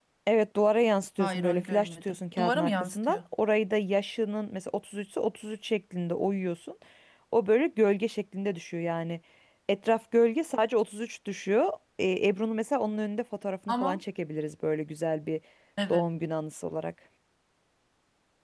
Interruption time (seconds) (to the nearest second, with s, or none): 1 s